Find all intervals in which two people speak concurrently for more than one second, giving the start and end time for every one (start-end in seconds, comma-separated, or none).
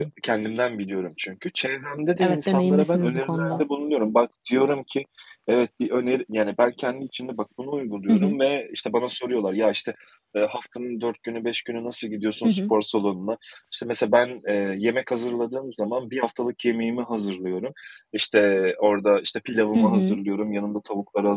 2.2-3.6